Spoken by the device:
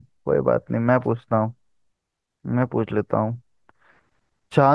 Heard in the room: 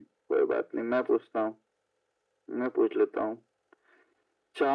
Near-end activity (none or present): none